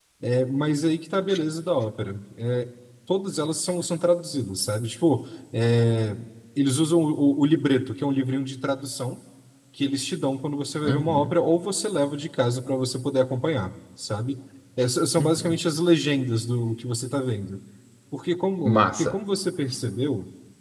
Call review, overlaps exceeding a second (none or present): none